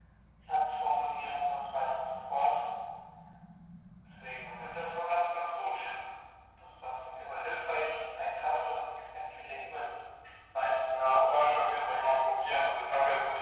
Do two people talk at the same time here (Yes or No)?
Yes